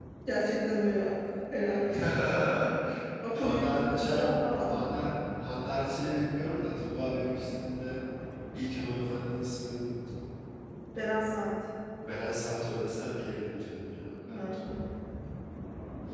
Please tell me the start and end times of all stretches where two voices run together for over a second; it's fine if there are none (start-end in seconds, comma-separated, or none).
3.3-4.8